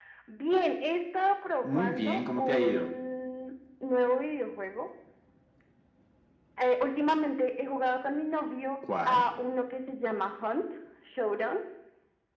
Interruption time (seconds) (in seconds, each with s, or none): 1.6 s